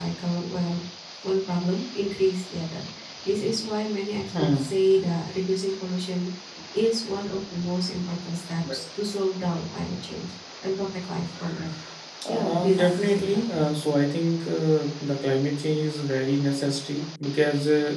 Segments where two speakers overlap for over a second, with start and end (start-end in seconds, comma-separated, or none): 12.2-13.6